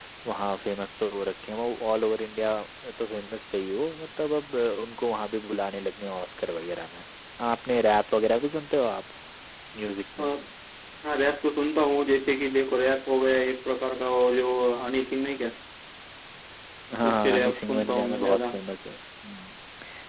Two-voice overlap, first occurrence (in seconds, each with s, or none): 17.1 s